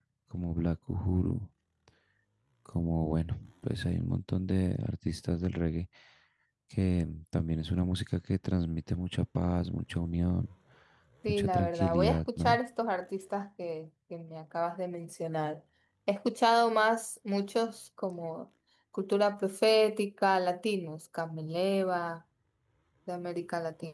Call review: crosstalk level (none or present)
present